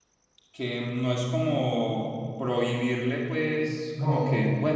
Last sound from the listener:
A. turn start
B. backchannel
B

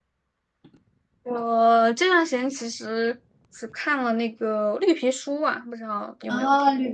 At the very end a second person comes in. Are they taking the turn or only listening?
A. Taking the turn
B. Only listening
A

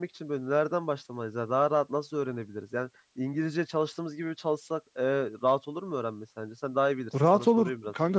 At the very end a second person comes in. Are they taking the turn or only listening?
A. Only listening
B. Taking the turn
B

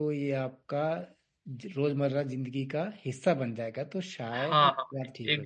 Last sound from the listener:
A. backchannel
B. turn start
B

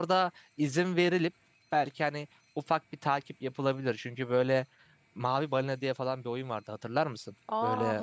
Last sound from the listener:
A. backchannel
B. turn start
B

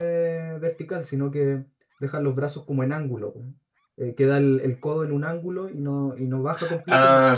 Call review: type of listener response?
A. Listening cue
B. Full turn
A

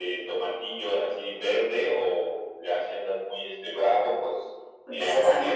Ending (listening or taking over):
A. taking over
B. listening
A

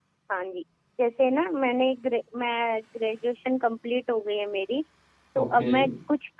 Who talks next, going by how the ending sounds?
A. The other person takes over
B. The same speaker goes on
B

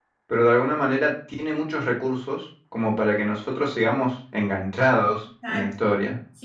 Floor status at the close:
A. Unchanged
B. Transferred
B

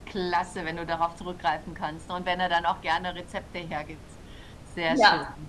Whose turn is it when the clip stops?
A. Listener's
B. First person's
A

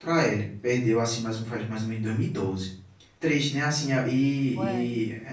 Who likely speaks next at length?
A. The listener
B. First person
B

